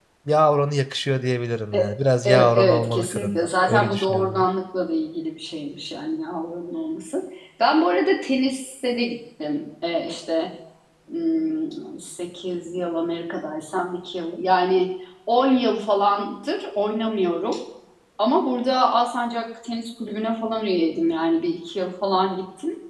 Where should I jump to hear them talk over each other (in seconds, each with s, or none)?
2.2 s